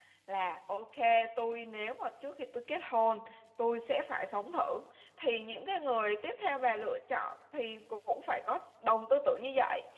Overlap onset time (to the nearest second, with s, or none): none